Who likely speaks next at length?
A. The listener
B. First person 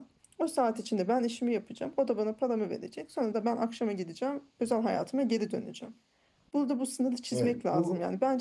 B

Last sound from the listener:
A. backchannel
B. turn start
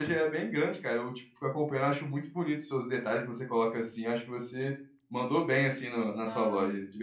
B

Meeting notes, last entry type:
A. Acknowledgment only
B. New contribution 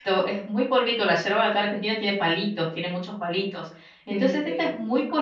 A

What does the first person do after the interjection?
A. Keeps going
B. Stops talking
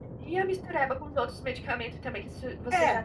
A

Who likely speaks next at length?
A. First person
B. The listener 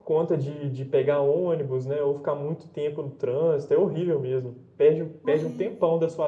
A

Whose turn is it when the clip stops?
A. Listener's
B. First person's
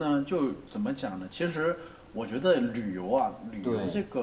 B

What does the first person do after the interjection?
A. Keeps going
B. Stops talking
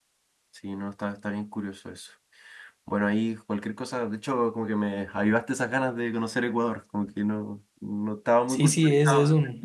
B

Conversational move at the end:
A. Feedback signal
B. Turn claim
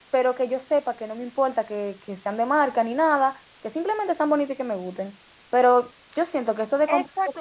B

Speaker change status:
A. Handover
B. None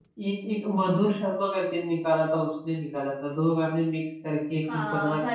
A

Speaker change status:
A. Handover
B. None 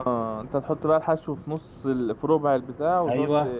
A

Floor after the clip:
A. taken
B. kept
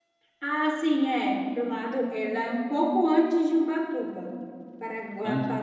B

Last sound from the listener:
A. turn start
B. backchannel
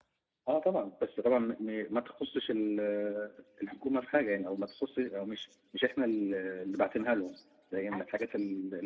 B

